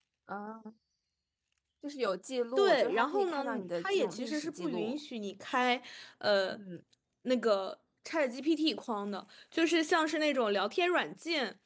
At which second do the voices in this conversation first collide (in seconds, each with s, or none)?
2.6 s